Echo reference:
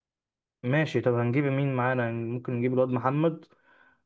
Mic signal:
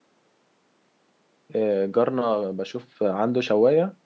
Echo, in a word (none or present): none